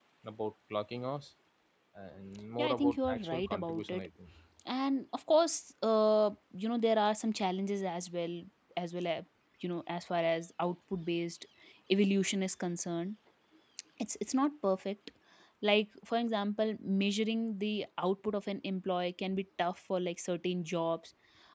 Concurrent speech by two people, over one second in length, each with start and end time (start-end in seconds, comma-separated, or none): 2.6-4.1